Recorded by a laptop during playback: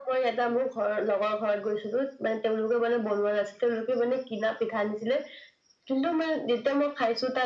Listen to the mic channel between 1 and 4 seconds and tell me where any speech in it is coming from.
echo only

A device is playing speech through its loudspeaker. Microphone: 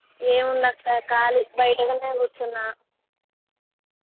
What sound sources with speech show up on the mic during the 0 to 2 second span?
user only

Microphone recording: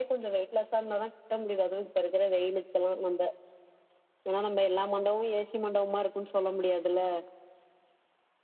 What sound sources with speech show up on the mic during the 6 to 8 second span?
echo only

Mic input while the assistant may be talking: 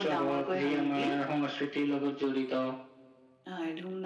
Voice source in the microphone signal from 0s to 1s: echo only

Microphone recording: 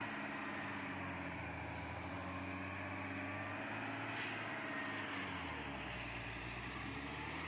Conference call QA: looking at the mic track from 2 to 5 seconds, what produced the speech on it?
neither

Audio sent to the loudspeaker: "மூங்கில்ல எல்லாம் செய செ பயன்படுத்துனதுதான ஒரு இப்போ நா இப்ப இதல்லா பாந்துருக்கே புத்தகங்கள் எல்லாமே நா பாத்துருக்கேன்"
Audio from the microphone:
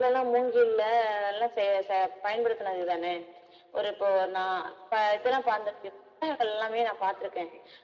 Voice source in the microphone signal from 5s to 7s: echo only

